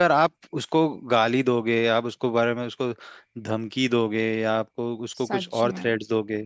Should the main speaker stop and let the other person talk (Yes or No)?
No